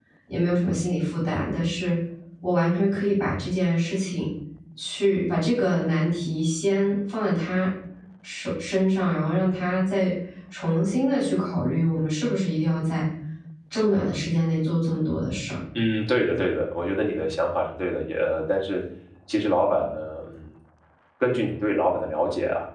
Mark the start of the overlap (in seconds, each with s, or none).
none